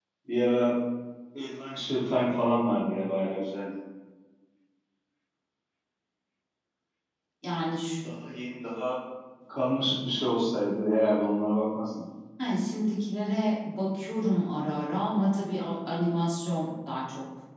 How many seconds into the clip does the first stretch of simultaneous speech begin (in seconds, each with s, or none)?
none